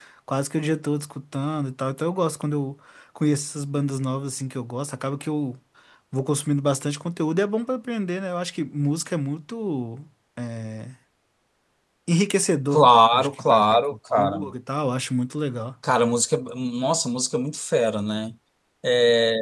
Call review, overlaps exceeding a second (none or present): present